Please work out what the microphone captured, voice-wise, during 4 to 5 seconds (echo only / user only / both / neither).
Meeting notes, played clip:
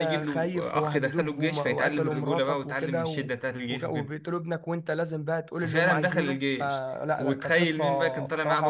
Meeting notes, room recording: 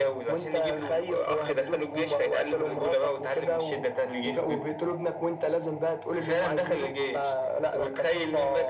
echo only